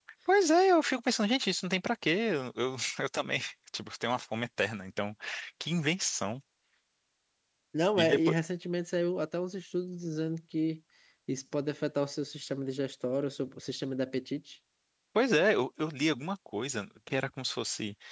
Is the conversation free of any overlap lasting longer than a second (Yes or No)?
Yes